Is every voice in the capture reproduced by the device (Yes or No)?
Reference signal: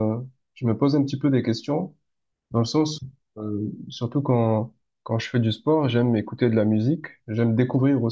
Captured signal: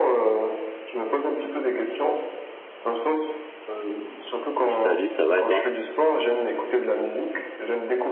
No